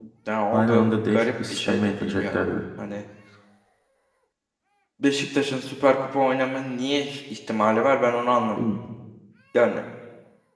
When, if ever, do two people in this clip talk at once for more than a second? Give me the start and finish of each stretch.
0.5-2.4

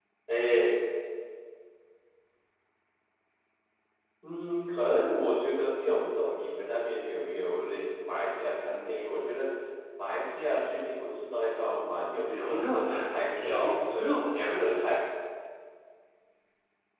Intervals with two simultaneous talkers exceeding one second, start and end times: 12.2-14.6

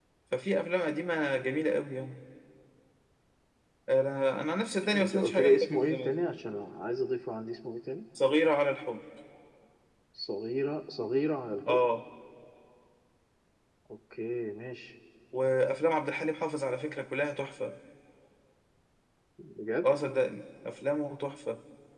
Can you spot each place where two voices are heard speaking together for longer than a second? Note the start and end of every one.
4.9-6.2

